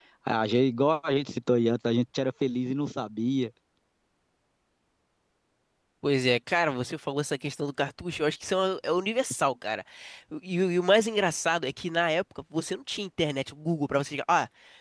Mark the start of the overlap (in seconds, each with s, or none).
none